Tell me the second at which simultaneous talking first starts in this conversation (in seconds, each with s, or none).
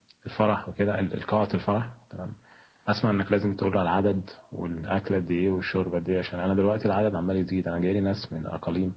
none